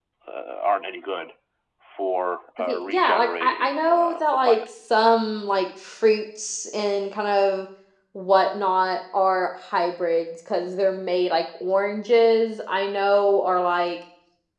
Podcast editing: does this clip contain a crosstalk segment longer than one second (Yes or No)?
Yes